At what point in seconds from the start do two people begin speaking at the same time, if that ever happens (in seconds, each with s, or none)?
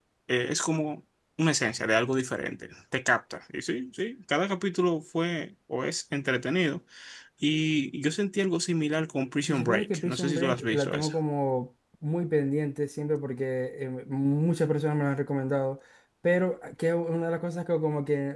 9.5 s